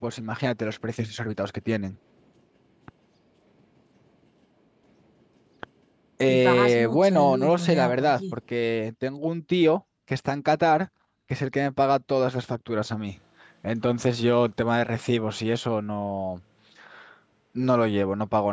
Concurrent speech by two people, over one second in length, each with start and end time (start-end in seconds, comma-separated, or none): 6.3-8.4